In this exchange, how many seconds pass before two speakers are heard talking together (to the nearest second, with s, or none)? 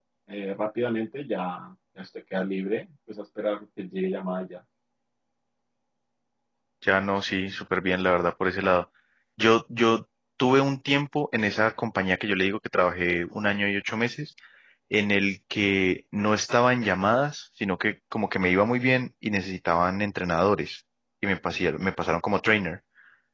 none